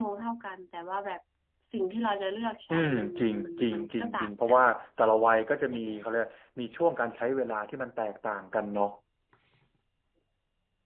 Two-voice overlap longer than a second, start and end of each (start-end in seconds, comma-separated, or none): 2.7-4.6